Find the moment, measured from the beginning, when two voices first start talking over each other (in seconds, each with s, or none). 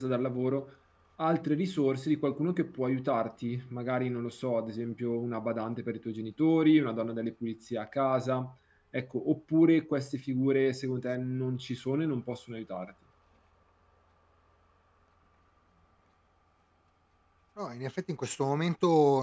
none